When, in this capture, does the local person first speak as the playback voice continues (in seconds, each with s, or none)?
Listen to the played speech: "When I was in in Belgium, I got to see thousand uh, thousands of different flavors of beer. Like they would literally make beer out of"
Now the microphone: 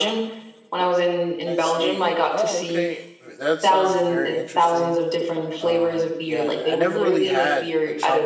1.4 s